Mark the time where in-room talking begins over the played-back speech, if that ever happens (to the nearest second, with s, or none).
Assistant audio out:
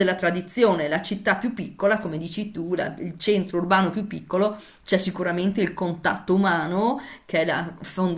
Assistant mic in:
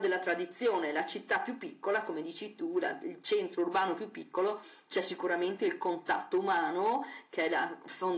none